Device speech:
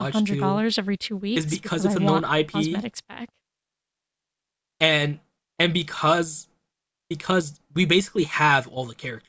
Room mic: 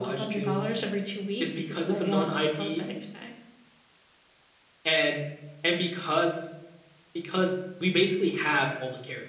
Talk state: echo only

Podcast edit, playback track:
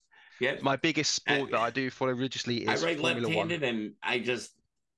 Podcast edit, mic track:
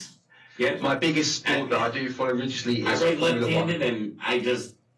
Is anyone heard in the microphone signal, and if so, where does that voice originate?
echo only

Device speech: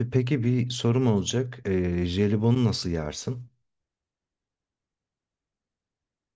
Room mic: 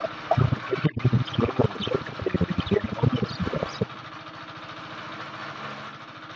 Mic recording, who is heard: echo only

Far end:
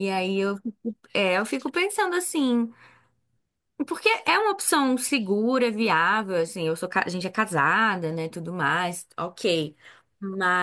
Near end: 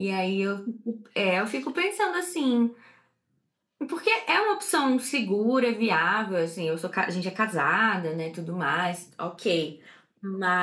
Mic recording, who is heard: echo only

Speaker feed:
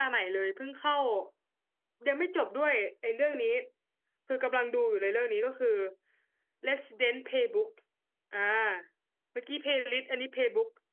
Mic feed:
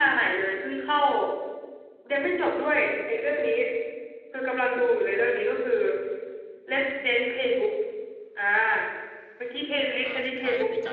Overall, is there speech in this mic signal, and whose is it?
both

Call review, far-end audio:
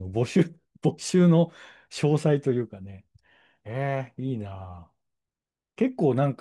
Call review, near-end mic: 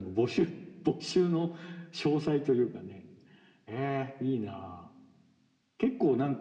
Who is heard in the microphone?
echo only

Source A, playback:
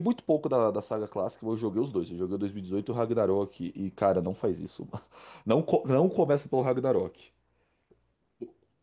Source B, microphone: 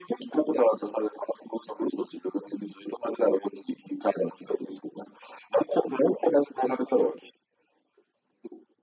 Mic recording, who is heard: echo only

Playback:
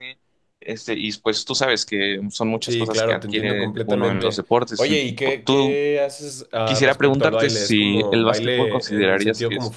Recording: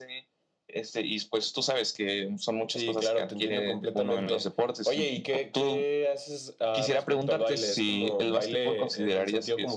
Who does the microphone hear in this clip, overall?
echo only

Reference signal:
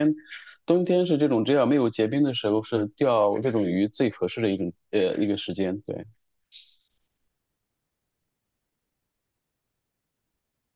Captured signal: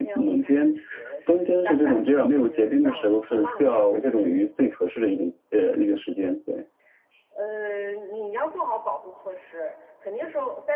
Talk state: both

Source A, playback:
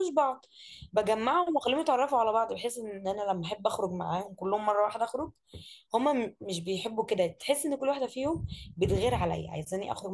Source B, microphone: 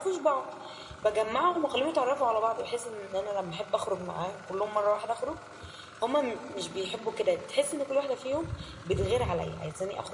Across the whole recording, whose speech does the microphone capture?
echo only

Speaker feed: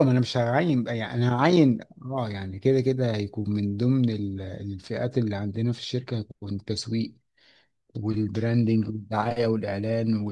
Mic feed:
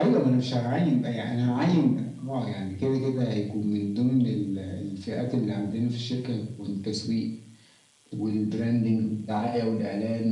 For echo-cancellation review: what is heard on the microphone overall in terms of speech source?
echo only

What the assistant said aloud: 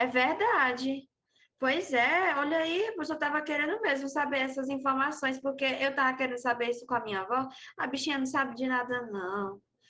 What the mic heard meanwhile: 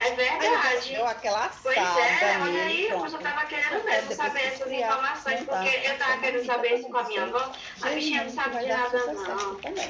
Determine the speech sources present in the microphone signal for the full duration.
both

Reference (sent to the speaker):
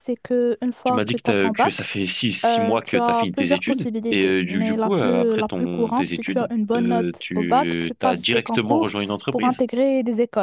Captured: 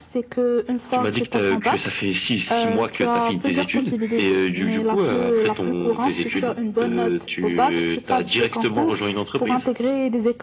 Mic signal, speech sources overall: echo only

